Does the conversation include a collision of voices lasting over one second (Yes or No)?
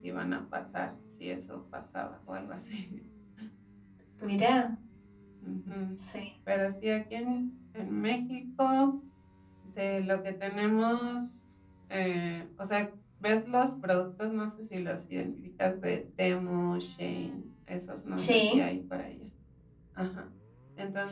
No